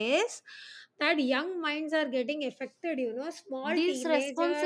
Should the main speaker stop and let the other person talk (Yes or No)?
Yes